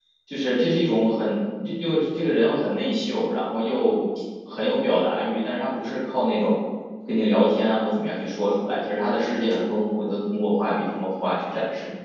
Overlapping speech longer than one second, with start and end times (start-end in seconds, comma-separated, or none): none